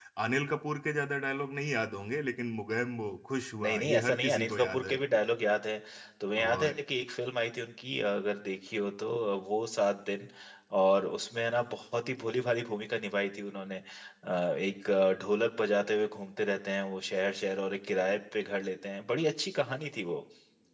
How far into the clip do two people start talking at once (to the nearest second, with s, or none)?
4 s